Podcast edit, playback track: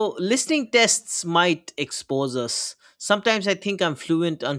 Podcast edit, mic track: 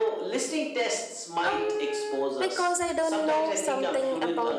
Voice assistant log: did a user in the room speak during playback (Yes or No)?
Yes